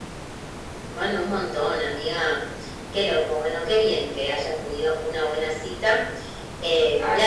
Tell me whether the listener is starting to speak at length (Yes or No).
No